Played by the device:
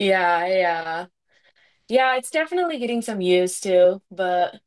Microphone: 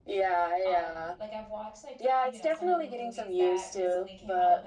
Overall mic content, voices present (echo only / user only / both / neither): both